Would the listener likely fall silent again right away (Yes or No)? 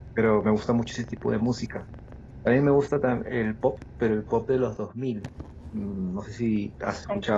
Yes